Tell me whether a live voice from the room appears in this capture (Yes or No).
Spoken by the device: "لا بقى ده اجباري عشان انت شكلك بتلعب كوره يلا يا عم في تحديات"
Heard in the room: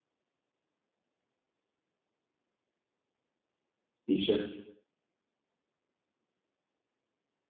Yes